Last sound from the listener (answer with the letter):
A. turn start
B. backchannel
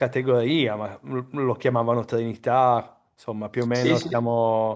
A